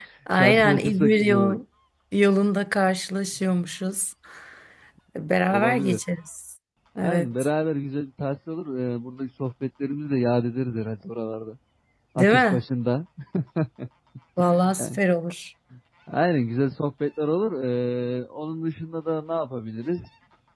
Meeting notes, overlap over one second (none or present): present